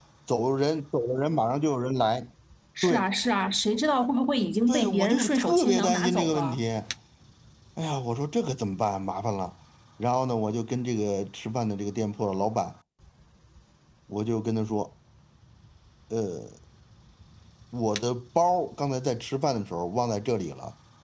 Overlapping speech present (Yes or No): Yes